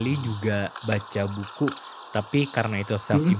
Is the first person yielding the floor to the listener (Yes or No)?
No